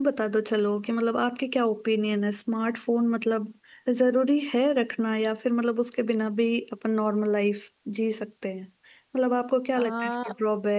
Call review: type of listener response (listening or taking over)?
listening